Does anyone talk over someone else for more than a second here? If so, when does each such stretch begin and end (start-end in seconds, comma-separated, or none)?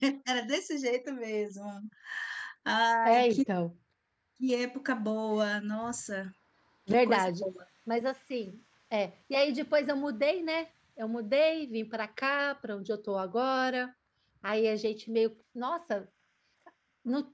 none